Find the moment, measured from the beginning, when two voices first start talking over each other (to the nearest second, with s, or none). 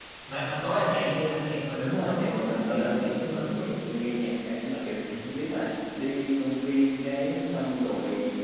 2 s